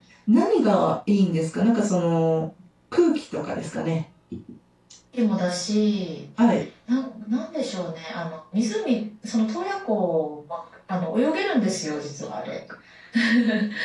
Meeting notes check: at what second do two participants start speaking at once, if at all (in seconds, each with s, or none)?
none